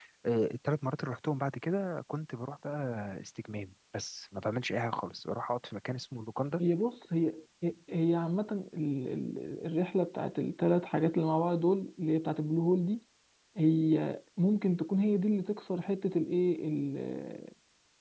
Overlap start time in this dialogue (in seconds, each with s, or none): none